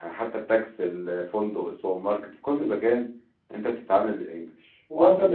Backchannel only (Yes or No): No